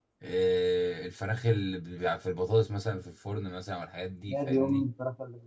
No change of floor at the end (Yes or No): No